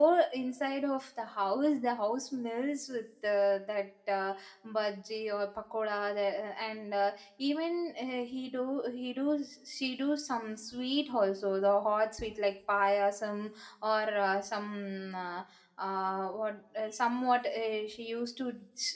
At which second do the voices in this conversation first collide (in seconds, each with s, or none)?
none